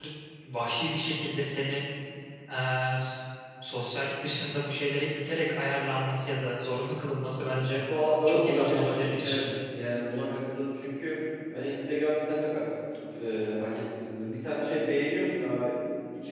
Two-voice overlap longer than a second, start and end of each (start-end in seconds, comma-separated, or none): 8.3-9.5